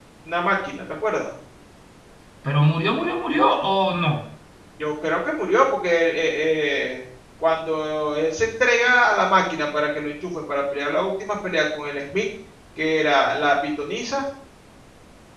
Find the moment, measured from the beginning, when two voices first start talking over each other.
none

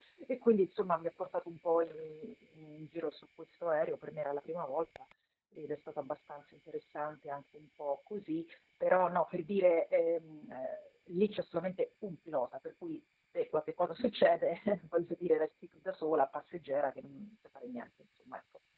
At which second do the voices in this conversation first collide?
none

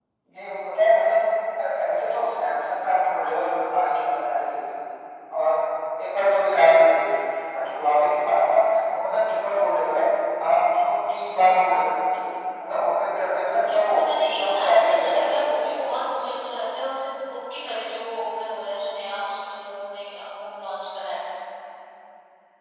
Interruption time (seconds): 13.6 s

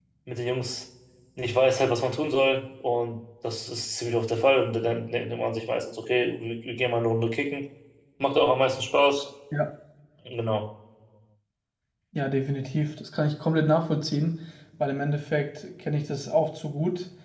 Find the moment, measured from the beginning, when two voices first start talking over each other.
none

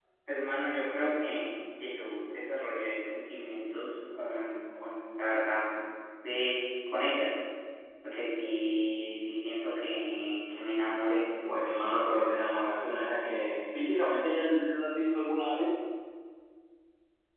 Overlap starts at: none

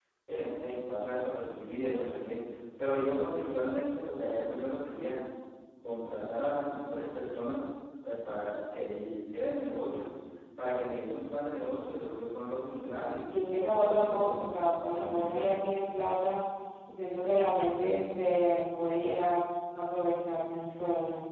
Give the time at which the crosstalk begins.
13.3 s

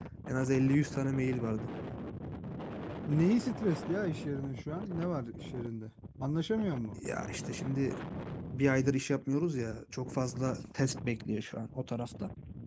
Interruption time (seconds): none

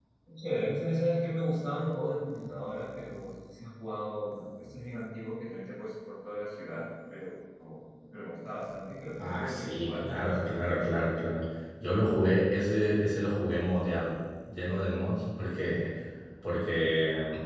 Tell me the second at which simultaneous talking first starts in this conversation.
9.2 s

